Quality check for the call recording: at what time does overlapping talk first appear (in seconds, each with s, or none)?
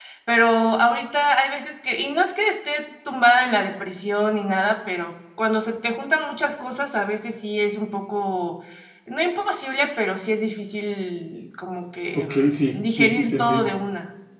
12.2 s